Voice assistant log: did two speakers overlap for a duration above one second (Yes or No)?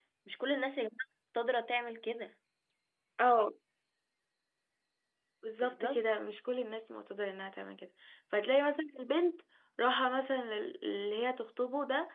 No